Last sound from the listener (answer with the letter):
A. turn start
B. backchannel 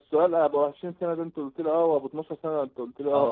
A